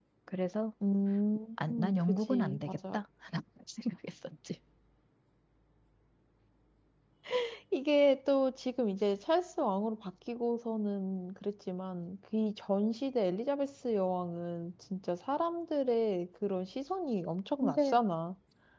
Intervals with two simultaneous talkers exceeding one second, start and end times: 1.6-3.0

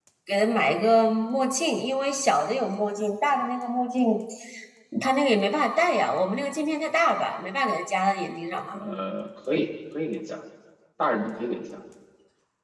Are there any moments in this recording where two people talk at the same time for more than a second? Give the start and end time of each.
none

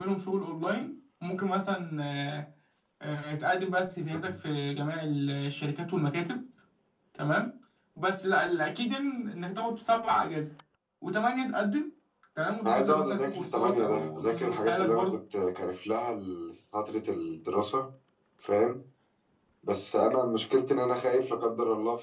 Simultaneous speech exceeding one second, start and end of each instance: 12.7-15.1

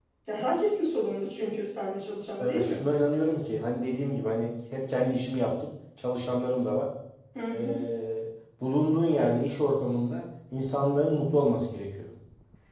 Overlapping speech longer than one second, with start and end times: none

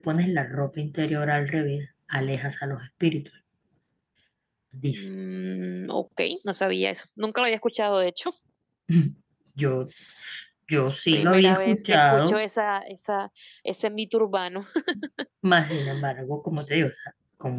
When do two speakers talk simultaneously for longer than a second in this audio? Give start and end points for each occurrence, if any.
11.1-12.4

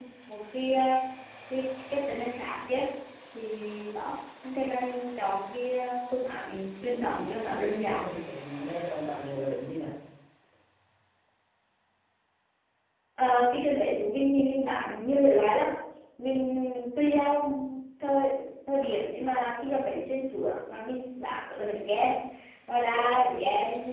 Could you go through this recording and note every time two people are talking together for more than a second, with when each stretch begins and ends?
none

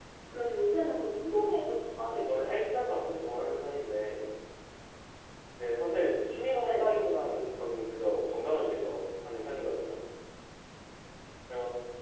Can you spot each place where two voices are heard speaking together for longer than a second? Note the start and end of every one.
none

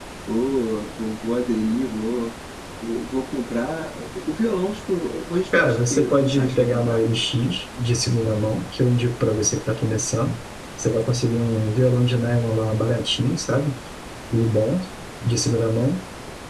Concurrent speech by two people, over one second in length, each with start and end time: 5.5-7.0

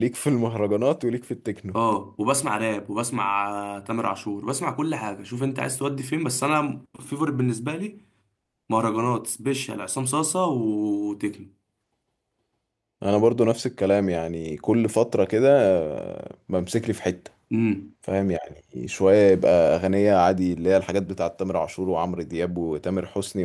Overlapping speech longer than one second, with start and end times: none

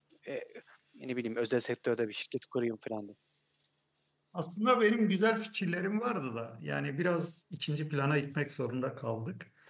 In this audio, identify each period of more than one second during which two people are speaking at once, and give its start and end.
none

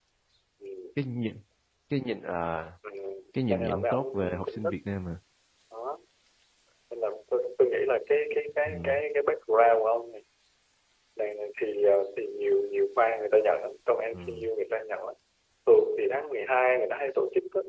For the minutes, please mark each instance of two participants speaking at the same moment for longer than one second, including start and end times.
3.5-4.7

